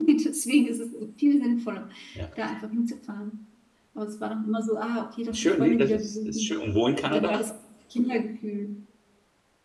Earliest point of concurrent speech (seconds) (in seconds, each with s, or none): 5.3 s